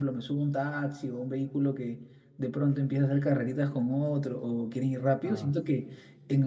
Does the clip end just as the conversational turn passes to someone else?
No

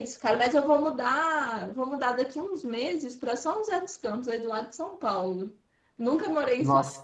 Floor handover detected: No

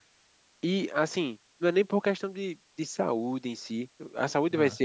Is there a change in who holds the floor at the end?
No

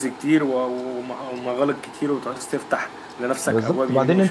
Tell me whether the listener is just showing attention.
No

